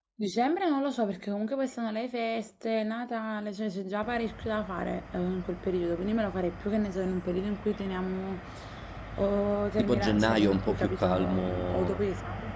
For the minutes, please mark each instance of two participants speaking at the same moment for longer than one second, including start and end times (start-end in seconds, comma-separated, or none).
9.8-12.0